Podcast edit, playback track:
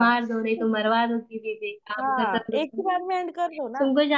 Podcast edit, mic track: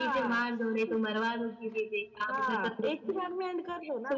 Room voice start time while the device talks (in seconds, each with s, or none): none